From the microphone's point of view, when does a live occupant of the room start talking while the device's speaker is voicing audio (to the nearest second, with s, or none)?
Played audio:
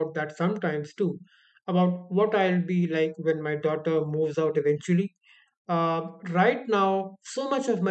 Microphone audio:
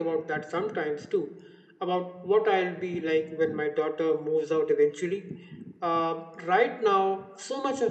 none